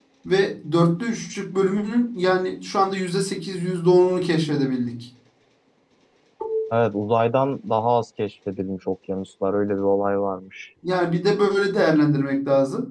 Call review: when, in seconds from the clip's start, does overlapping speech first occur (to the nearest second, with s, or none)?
none